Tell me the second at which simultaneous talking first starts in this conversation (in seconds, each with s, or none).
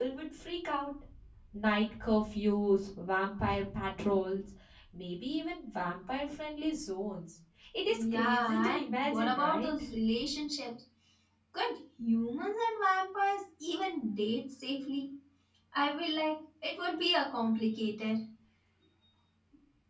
7.9 s